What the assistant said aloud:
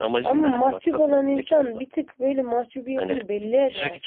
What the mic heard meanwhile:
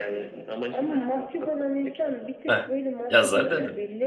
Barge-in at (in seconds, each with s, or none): 2.5 s